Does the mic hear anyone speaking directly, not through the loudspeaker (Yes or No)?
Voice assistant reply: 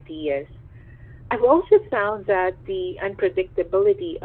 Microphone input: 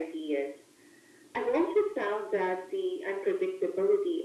No